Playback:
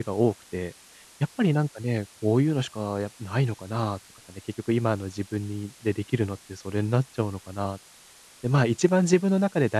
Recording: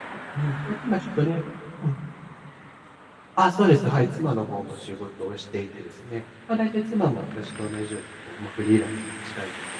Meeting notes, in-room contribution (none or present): present